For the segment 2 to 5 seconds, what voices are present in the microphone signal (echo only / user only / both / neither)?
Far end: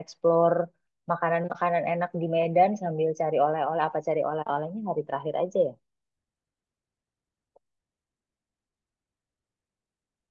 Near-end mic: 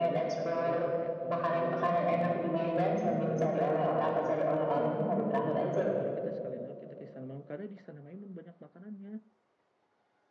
both